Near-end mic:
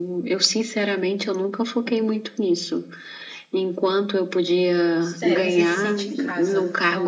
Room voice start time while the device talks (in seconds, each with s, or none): 5.0 s